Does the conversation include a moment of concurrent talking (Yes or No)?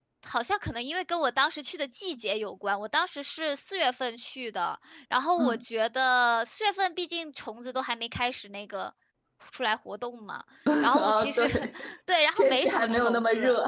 Yes